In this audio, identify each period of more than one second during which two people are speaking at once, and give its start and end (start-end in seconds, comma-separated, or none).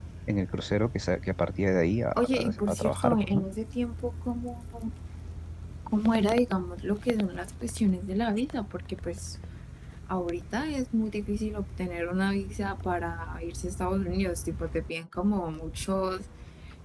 2.1-3.4